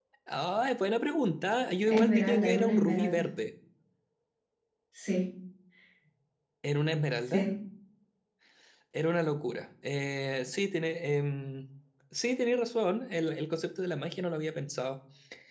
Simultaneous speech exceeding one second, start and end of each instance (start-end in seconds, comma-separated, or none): 1.9-3.2